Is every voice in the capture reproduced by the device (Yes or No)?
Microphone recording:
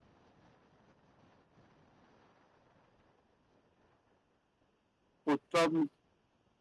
No